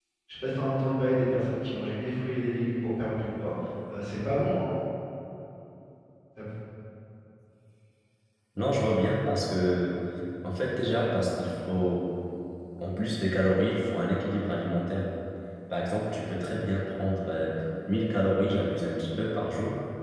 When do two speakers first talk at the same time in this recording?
none

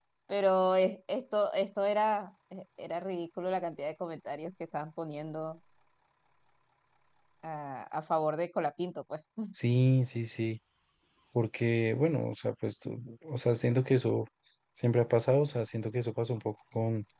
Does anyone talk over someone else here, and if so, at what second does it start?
none

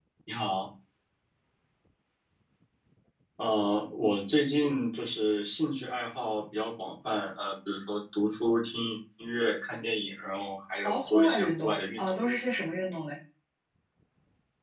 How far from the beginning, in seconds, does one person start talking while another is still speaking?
10.8 s

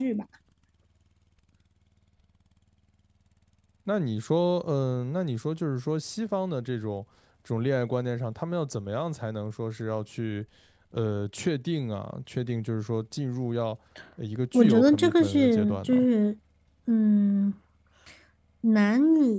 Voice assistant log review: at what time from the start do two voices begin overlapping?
14.5 s

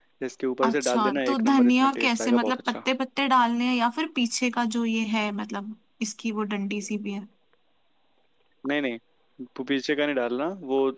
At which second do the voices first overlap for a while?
0.6 s

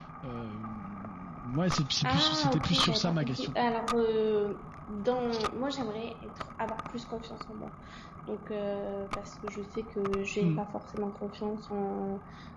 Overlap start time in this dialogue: 2.0 s

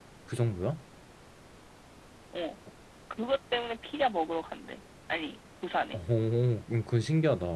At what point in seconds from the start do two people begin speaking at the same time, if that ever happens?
none

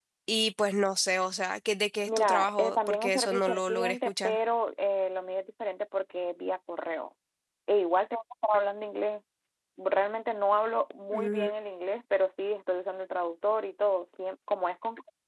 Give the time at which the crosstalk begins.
2.1 s

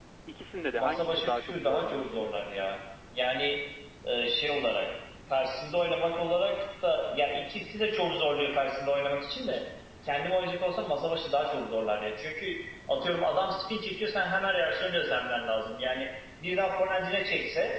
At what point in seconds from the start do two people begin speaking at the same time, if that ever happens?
0.8 s

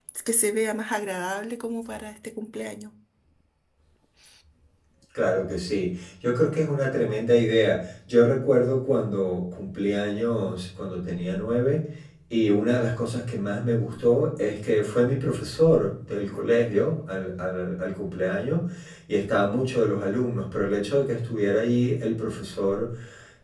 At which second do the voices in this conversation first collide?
none

